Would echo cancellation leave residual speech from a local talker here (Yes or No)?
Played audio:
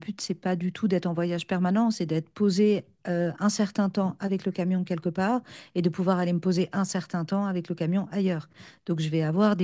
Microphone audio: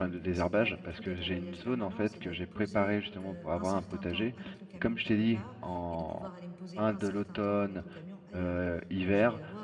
Yes